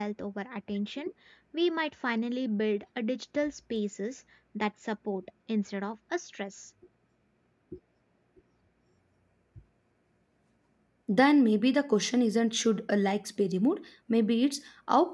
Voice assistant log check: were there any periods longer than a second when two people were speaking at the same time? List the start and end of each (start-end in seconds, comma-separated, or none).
none